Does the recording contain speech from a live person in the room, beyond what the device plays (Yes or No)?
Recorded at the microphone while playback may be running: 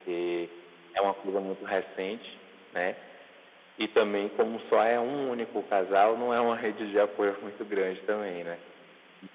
No